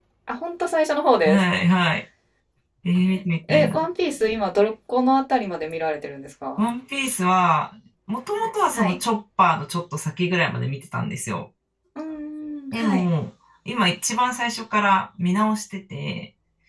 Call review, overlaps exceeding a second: none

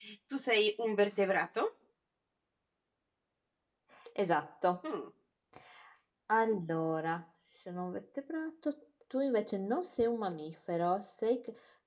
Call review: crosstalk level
none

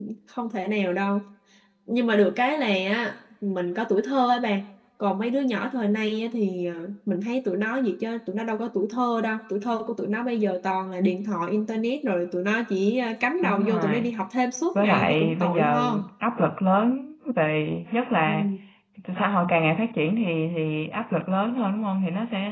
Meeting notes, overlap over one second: present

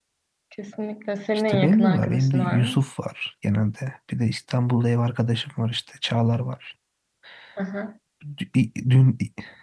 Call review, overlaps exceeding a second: present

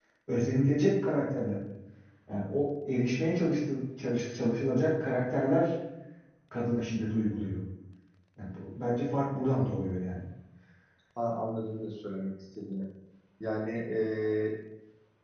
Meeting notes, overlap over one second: none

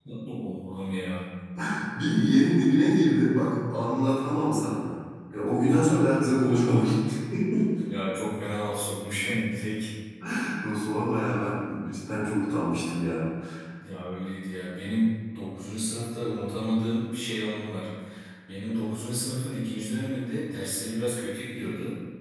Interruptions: none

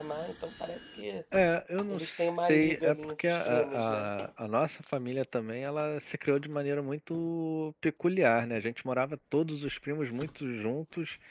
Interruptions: present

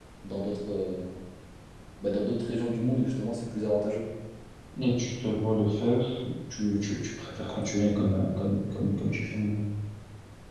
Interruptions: none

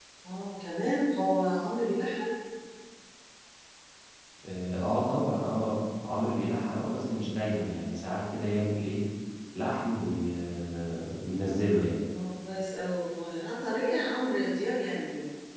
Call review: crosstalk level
none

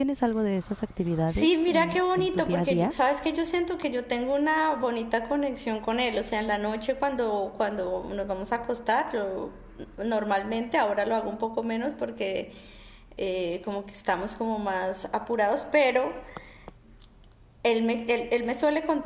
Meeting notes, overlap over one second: present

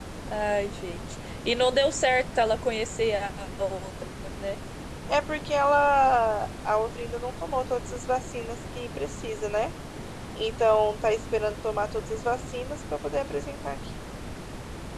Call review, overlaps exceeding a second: none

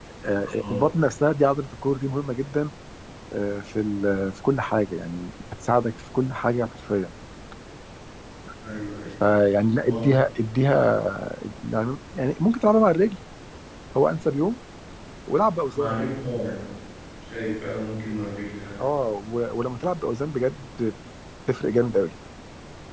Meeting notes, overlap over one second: none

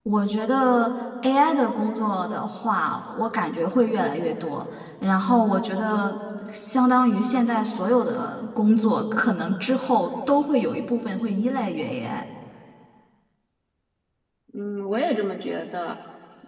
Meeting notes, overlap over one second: none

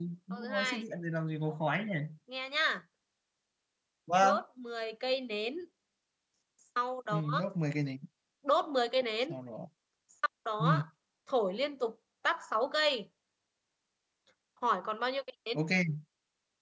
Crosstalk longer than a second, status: none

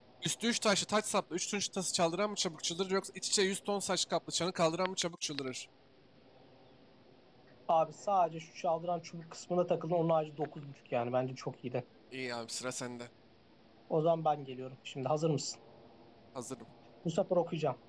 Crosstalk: none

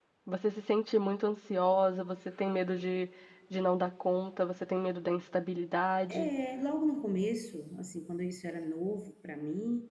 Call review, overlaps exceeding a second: none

